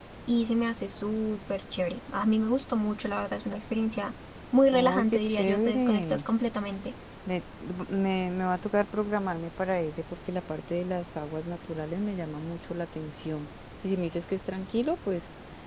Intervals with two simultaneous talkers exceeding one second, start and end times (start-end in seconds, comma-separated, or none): 4.7-6.2